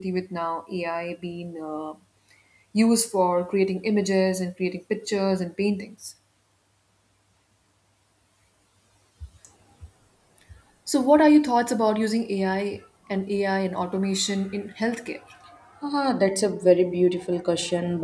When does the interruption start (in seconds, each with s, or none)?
none